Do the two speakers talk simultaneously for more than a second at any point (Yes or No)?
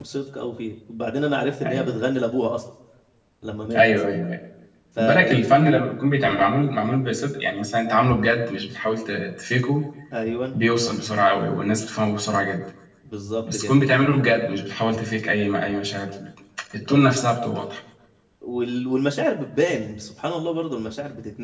No